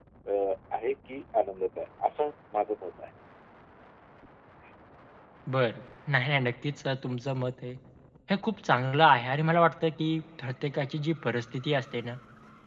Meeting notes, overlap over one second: none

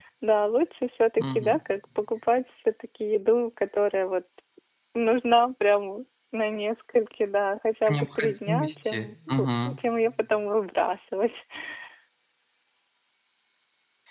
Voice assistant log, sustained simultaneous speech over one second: present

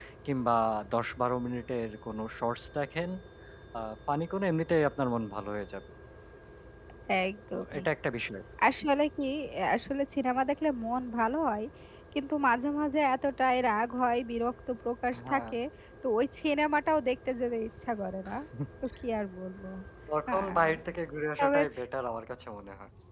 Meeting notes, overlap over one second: none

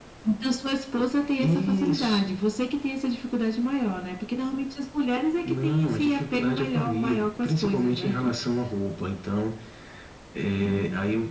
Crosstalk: present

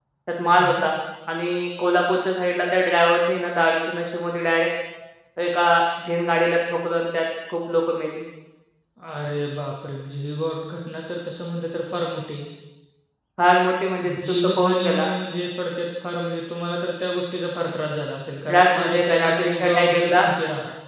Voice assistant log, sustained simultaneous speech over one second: present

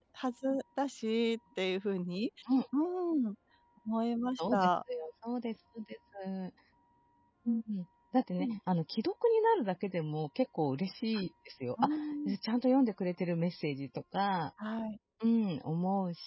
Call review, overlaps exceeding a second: none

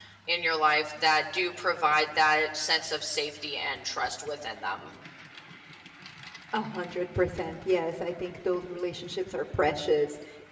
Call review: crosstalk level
none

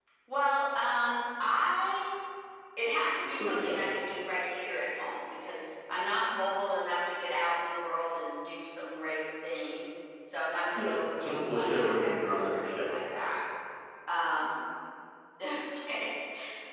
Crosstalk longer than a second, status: present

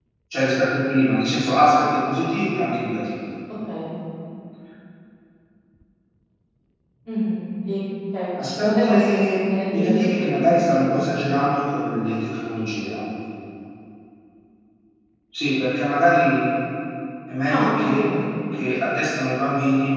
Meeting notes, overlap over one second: present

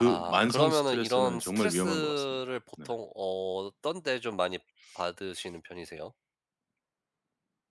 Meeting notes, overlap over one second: present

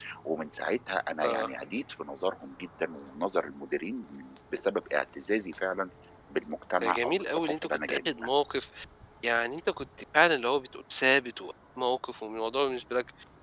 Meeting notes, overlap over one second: present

